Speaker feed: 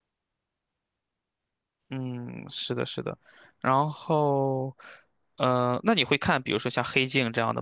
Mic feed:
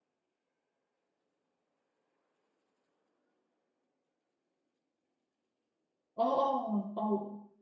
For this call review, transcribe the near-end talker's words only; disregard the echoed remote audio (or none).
哦哦哦，